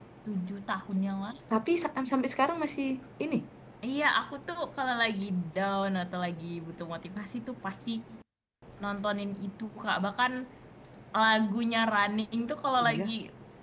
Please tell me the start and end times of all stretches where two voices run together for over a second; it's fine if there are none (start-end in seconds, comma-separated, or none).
none